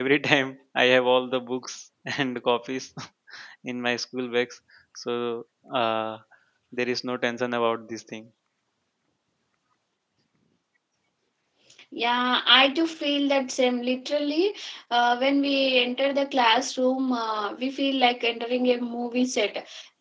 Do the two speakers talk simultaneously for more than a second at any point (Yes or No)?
No